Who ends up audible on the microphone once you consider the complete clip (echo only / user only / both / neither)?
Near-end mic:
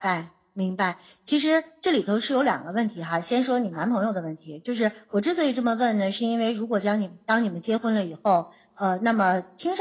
echo only